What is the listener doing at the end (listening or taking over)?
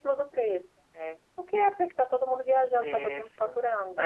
taking over